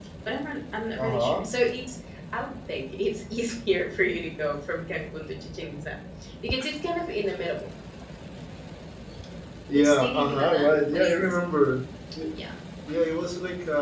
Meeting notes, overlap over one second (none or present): present